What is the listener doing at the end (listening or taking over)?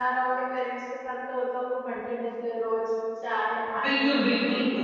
taking over